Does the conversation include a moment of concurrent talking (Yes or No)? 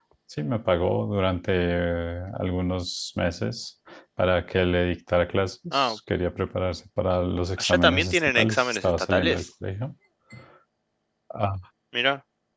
Yes